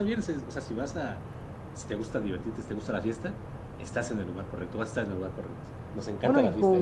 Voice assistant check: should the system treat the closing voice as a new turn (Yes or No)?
Yes